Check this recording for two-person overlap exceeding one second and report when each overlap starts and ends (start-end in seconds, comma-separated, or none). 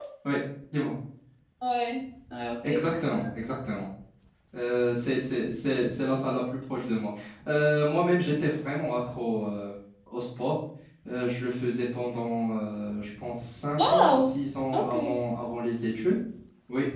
none